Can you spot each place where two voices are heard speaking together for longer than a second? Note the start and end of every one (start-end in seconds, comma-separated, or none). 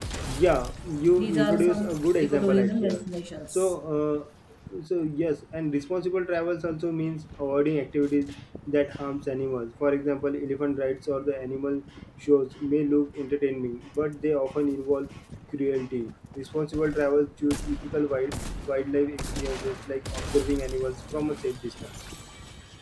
1.2-3.0